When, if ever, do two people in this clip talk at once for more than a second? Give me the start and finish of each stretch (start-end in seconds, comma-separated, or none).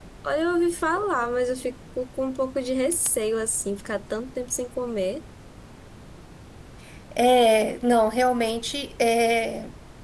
none